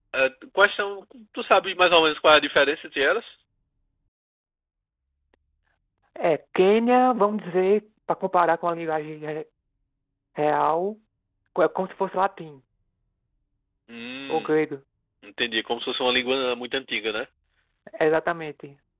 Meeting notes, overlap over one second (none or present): none